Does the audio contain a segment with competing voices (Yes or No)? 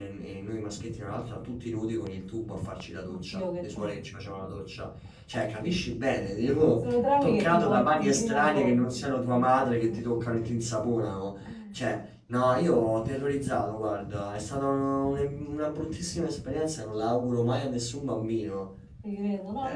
Yes